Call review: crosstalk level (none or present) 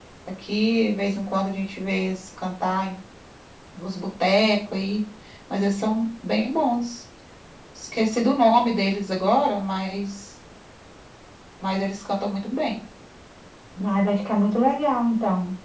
none